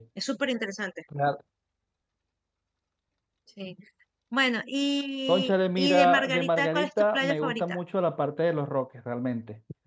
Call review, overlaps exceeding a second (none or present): present